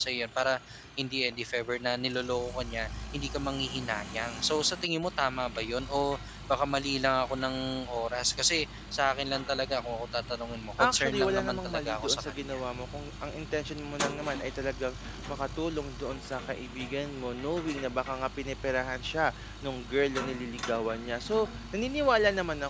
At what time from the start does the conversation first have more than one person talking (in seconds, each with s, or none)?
10.8 s